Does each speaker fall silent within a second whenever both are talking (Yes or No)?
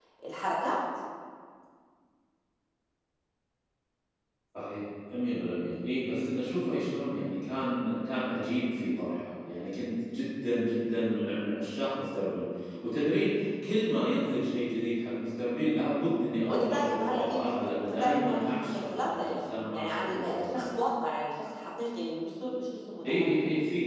No